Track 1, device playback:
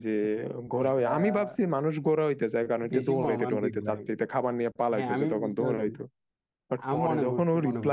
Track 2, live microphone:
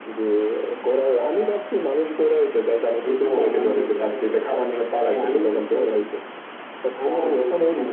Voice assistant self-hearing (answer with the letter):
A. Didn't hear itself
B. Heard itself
B